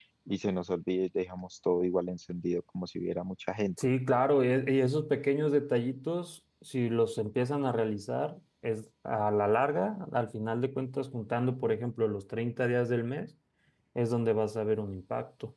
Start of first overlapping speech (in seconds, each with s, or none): none